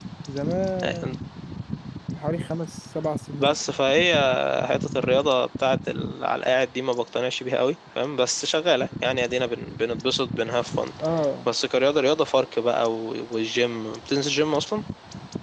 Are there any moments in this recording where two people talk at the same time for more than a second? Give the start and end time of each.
none

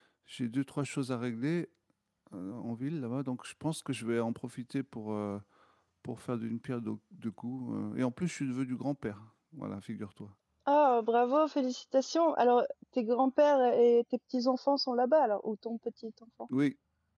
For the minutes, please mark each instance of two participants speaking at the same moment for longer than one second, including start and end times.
none

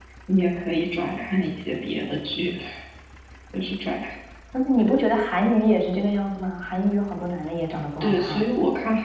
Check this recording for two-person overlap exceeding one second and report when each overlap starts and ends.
none

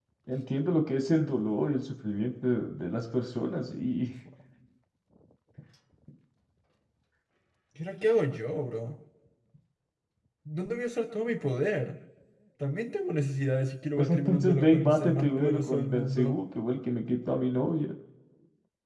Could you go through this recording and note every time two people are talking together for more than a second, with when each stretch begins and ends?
14.0-16.4

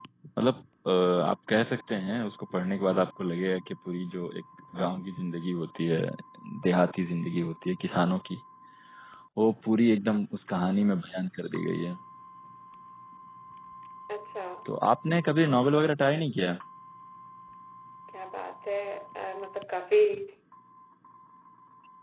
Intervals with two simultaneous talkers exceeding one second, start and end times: none

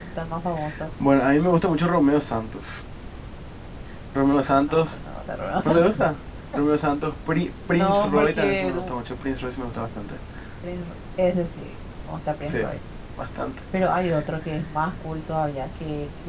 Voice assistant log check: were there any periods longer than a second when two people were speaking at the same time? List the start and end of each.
7.7-9.0

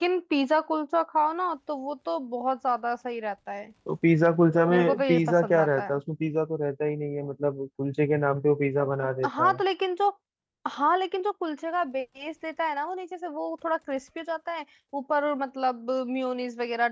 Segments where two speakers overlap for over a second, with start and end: 4.7-6.0

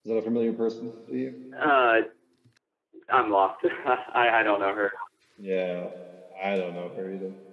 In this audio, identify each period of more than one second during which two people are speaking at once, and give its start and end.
none

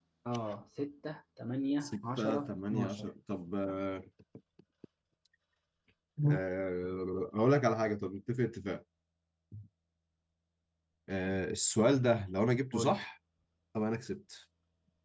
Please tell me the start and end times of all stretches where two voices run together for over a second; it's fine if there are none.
1.8-3.1

